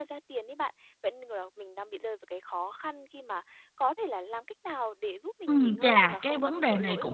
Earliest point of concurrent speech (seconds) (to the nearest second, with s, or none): 5 s